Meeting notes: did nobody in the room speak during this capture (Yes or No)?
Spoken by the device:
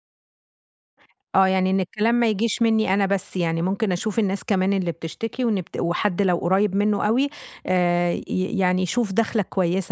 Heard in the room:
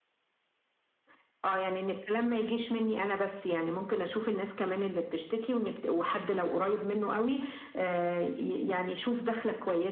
Yes